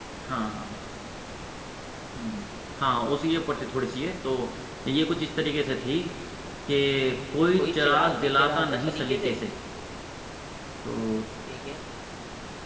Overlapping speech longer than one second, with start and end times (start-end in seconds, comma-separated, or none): 7.5-9.4